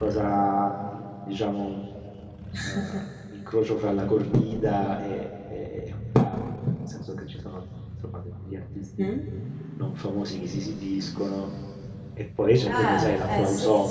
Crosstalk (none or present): present